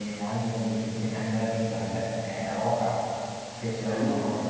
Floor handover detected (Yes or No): Yes